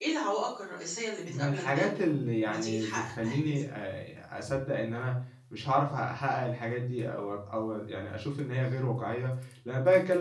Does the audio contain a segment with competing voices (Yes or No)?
Yes